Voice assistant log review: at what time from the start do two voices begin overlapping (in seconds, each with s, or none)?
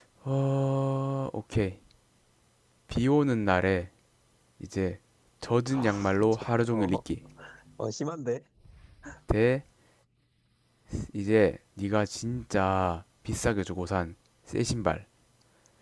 5.7 s